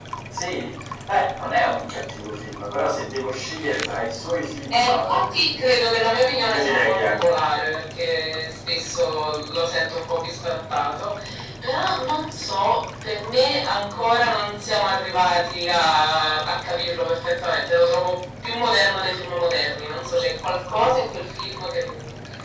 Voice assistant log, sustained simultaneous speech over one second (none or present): present